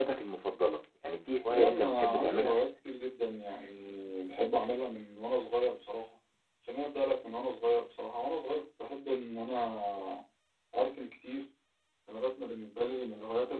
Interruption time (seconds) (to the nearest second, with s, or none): 1 s